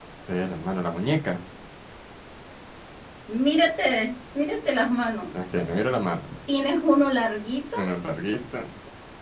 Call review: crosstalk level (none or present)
none